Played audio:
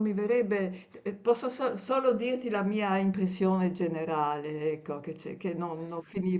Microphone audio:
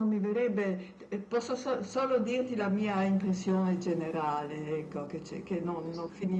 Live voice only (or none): none